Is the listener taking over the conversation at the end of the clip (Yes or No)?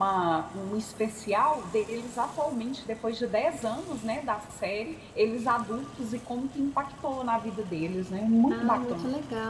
Yes